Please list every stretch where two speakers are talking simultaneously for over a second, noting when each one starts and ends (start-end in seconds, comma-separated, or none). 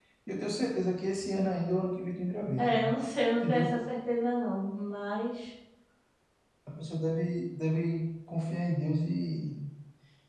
none